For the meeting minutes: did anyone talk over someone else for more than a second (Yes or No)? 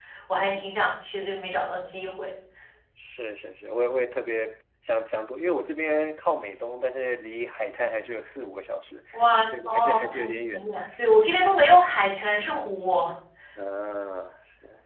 Yes